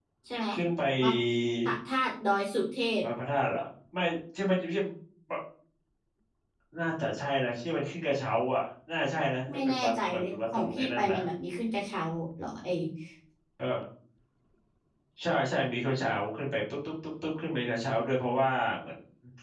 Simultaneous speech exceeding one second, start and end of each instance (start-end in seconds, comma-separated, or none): 9.5-11.2